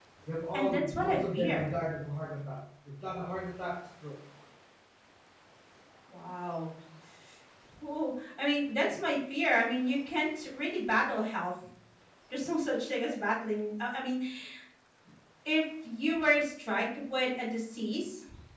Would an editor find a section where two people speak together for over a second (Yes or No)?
Yes